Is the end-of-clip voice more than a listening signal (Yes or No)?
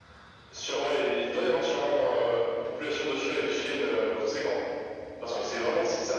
No